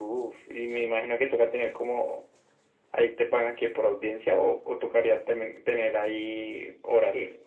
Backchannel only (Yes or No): No